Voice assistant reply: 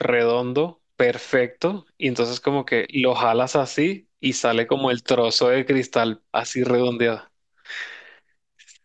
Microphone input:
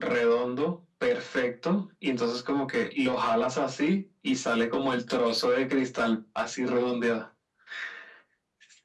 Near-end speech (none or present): none